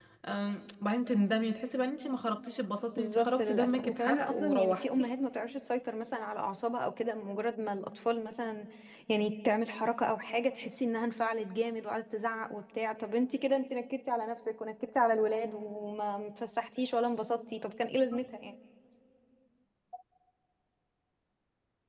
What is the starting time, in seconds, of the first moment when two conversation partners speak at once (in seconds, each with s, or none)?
3.0 s